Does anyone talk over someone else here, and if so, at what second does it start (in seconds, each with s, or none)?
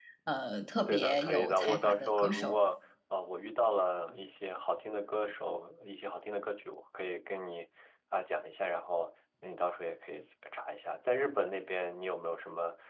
0.8 s